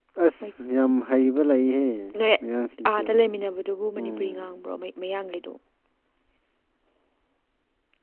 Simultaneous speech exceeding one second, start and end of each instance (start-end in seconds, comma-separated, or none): none